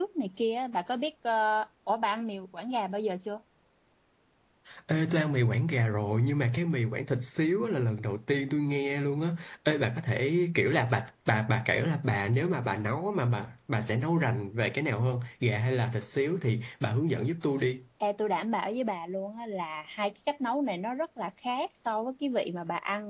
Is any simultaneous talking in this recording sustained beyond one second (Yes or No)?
No